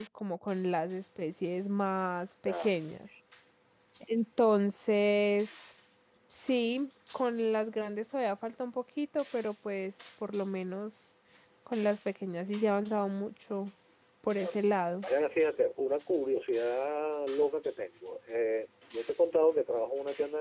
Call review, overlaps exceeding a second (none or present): none